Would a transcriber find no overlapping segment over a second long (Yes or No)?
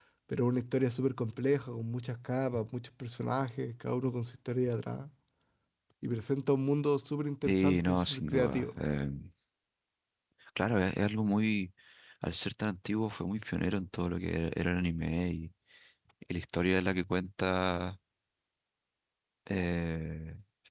No